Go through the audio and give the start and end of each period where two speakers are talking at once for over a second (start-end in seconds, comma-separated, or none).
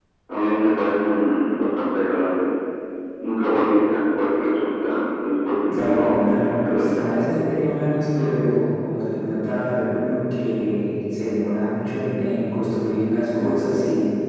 5.7-7.0